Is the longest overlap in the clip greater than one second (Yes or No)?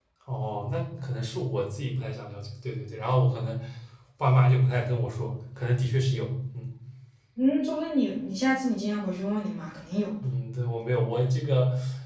No